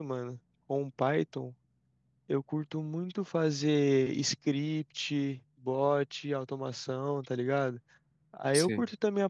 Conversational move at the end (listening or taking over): listening